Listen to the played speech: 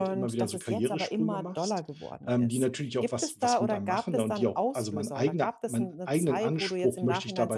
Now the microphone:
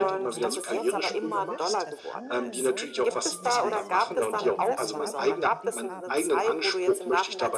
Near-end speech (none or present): present